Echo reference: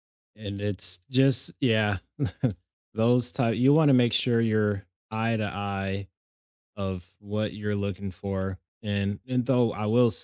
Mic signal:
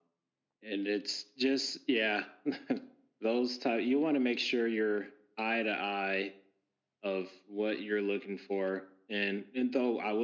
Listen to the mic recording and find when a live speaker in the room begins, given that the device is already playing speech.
none

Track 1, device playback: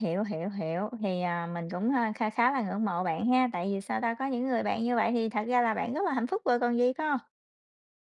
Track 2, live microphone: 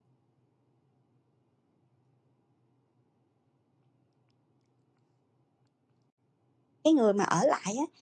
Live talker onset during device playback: 6.8 s

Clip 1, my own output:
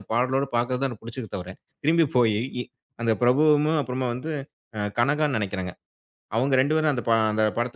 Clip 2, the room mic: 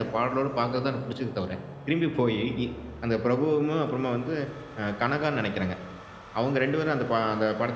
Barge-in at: none

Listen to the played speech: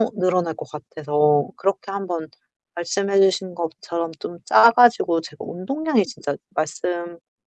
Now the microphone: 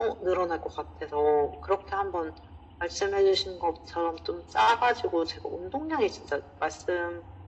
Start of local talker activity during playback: none

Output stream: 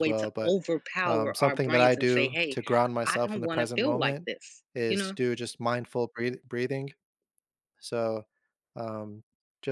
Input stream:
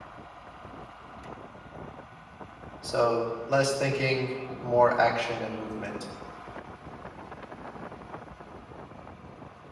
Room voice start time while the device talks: 2.8 s

